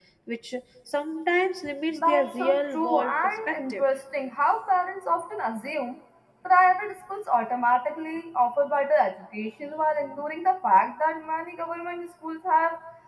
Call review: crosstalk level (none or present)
present